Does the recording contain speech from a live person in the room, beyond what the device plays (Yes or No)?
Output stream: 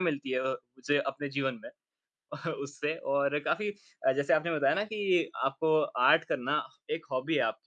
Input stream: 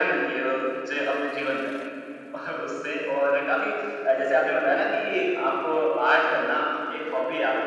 No